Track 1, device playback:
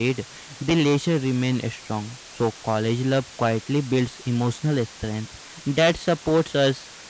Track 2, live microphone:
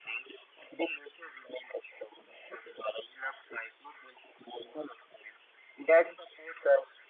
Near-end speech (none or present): none